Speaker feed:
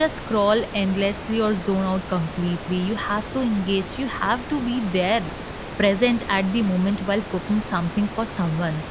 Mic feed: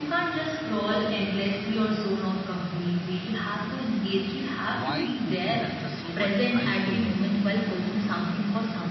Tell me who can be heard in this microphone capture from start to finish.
both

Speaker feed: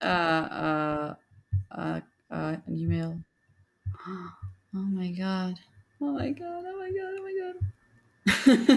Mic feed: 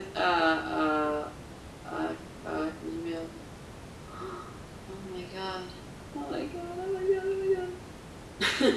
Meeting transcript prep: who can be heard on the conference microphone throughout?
echo only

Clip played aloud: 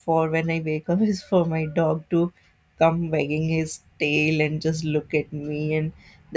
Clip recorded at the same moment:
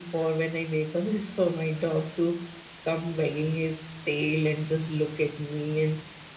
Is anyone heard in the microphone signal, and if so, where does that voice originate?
echo only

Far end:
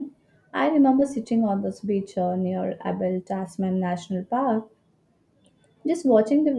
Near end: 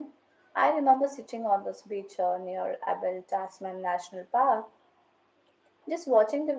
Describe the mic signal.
echo only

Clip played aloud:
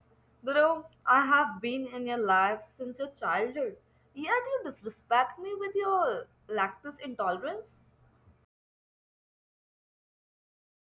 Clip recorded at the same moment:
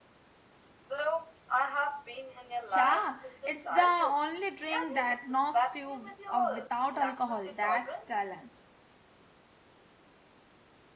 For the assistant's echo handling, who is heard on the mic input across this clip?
both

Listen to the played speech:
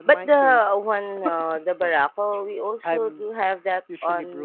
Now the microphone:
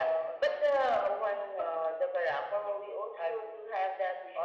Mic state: echo only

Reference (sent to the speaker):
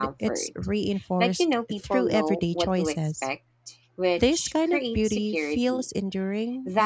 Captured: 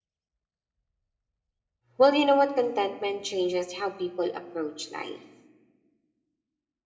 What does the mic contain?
user only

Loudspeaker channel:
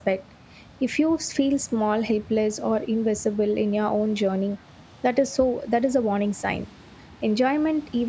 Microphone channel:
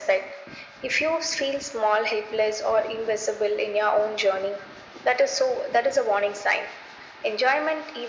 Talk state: echo only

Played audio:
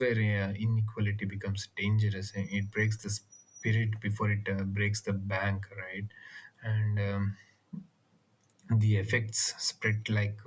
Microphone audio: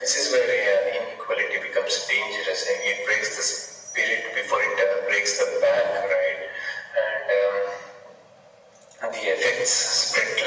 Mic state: echo only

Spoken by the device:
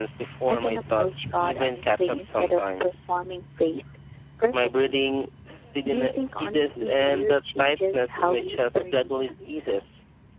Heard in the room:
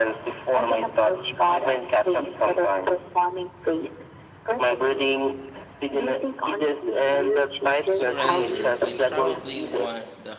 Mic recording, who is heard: both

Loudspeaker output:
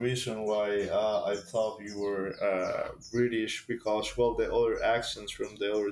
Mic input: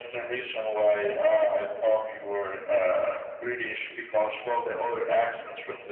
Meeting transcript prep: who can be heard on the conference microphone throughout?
echo only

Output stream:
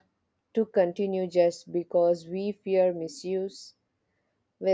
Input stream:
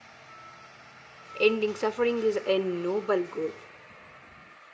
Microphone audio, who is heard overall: user only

